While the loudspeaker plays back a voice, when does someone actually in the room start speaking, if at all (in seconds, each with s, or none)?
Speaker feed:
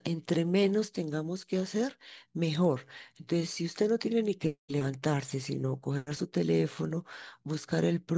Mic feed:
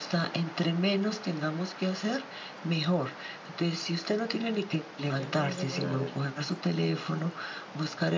5.1 s